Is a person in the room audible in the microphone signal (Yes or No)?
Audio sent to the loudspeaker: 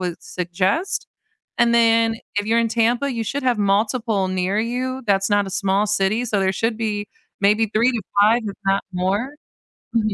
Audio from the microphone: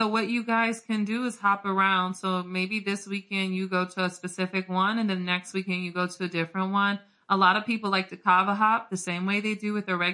Yes